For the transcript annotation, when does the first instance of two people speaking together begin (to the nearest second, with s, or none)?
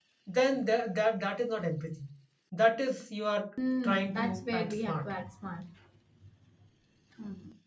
4 s